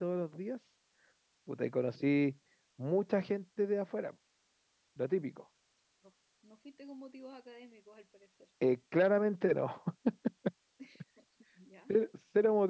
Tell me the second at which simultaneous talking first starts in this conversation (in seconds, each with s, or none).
none